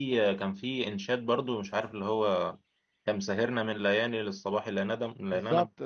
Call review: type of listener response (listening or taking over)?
taking over